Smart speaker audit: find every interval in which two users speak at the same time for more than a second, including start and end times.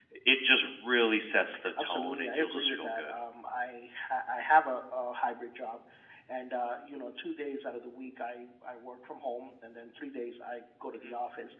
1.8-3.1

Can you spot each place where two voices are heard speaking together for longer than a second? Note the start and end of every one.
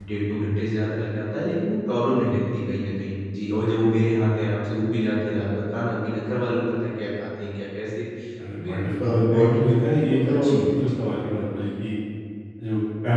8.6-11.0

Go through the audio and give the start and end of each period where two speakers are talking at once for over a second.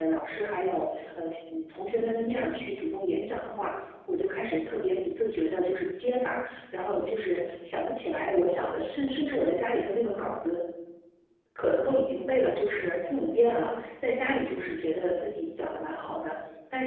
none

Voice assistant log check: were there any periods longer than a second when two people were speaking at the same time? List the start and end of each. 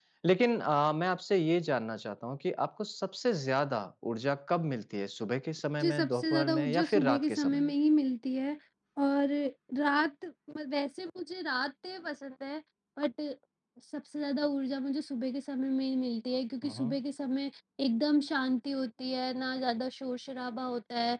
5.8-7.7

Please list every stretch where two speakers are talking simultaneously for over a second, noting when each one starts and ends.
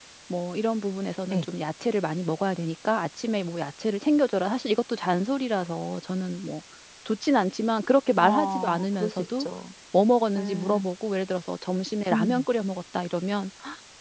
8.2-9.5

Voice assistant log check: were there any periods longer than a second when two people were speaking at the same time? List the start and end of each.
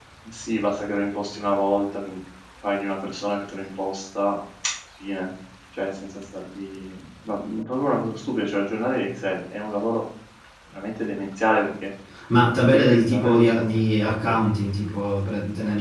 12.7-14.4

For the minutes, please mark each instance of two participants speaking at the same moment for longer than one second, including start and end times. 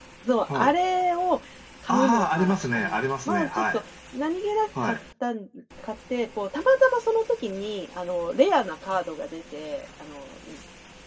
1.9-3.8

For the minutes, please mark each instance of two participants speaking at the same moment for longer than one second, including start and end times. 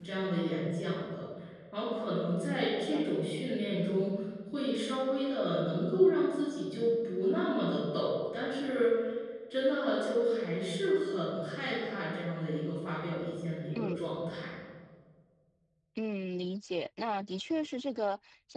none

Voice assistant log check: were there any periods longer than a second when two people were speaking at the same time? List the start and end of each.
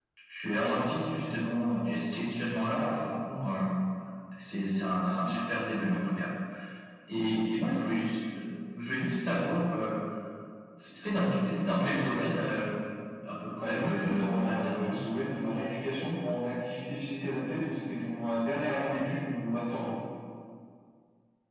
13.6-15.1

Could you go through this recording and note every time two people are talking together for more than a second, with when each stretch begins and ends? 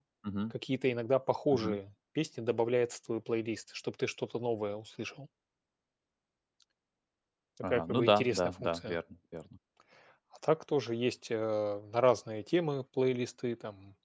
7.7-9.0

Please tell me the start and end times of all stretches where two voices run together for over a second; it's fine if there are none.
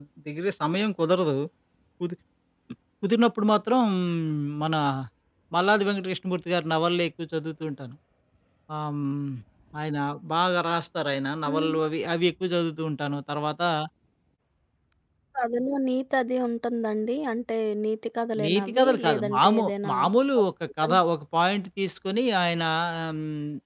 18.4-19.9

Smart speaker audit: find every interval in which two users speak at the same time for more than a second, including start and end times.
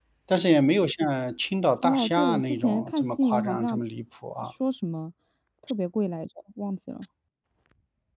1.8-3.8

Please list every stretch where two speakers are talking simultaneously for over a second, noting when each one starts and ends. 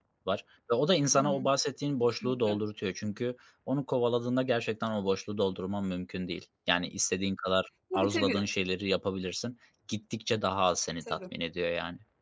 none

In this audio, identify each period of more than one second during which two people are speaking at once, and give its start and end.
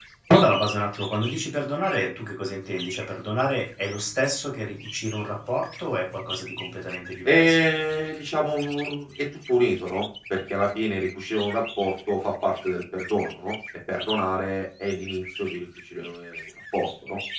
none

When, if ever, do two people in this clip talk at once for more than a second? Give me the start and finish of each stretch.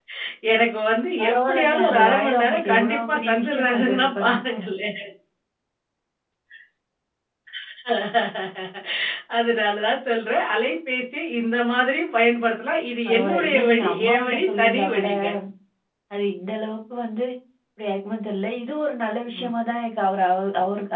1.2-4.4, 13.1-15.1

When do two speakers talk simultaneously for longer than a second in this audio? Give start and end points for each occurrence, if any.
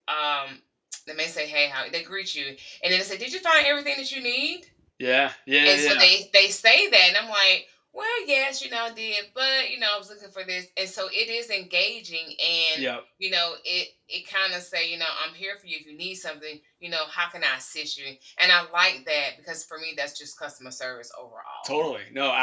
none

